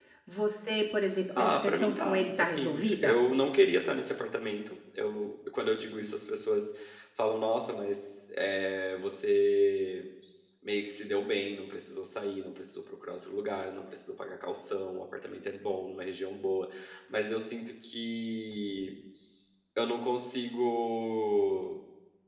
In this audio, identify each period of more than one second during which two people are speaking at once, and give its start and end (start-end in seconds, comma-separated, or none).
1.4-3.1